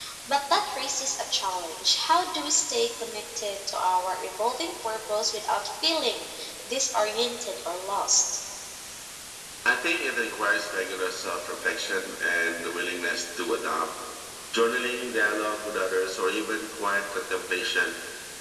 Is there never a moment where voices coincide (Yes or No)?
Yes